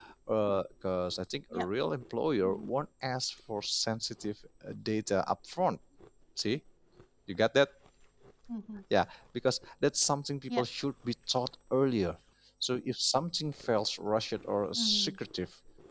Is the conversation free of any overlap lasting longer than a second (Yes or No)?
Yes